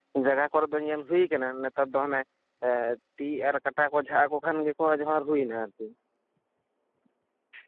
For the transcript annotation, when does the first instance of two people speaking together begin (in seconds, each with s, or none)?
none